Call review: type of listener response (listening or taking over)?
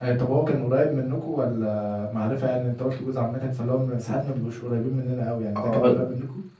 taking over